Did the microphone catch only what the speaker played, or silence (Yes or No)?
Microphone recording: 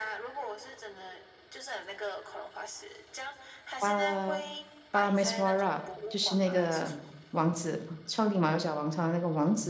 No